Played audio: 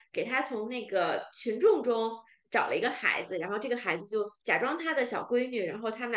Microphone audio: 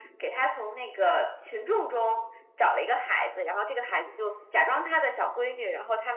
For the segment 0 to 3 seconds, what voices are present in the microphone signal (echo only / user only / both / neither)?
echo only